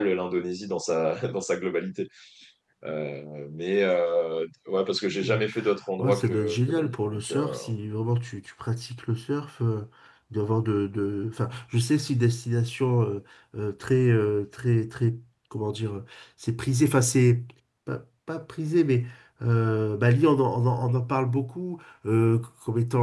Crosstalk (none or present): present